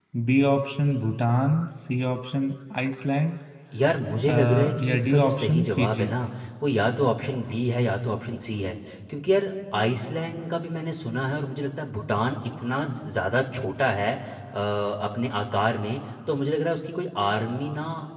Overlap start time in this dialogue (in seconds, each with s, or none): 4.3 s